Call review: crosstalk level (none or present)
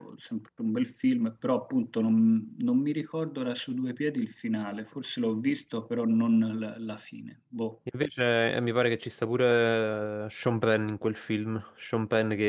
none